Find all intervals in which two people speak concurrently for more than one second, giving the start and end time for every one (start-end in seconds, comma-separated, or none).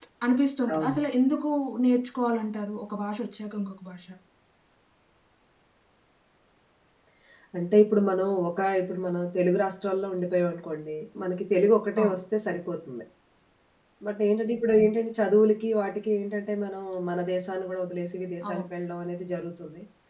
none